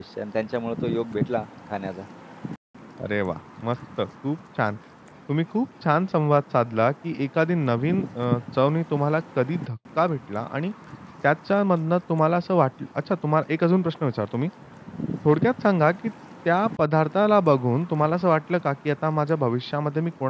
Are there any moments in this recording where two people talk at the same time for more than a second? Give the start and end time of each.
none

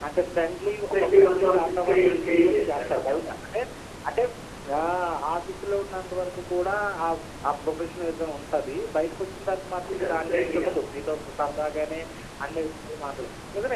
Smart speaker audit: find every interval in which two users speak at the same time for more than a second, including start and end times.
0.9-3.2, 9.9-11.1

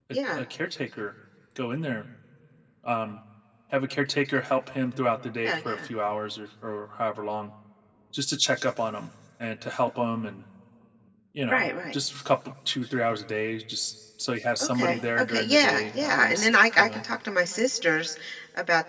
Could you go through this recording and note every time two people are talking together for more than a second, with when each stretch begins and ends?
14.6-17.0

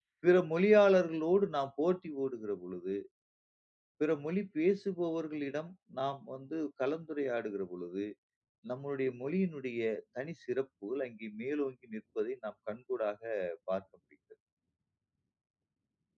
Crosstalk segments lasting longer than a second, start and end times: none

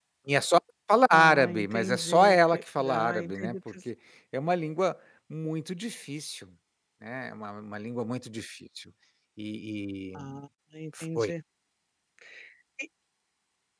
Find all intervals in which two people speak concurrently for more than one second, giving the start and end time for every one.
1.1-3.5

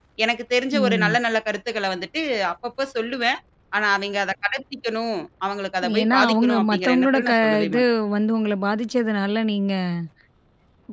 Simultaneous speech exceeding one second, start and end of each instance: 6.0-7.8

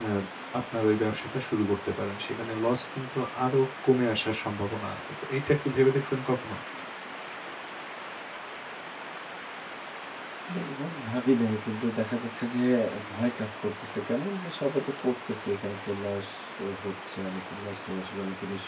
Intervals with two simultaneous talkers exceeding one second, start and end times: none

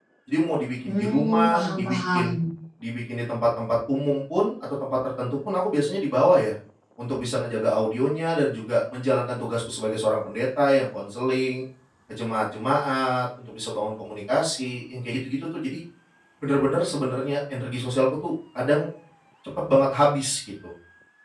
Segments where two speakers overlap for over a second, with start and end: 0.9-2.3

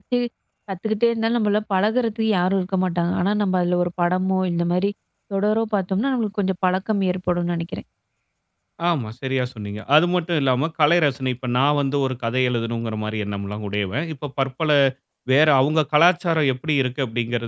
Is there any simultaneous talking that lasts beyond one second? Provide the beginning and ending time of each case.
none

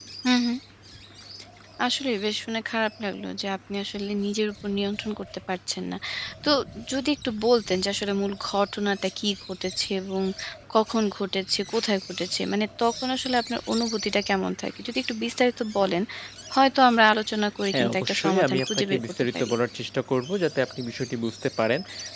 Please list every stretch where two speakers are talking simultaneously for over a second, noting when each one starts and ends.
17.7-19.5

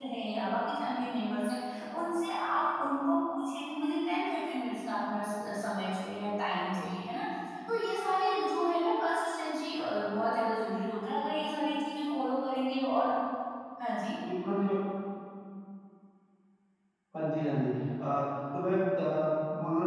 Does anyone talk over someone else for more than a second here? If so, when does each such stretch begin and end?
none

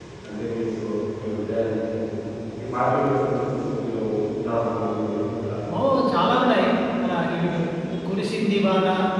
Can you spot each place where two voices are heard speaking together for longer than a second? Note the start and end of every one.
none

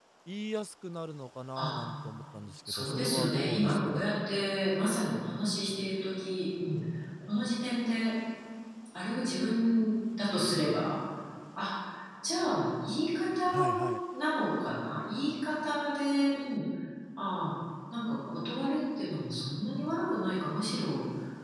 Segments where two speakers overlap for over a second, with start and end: 2.7-4.1

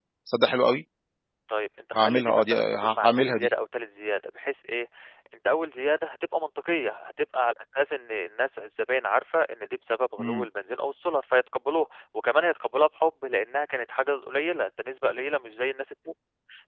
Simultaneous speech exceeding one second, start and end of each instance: 1.9-3.5

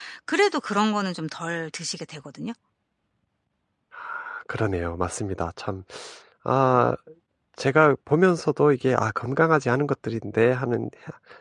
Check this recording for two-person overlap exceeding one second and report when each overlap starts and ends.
none

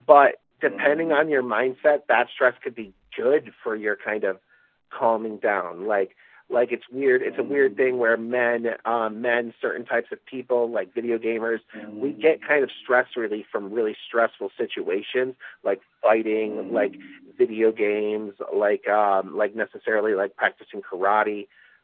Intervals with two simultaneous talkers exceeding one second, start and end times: none

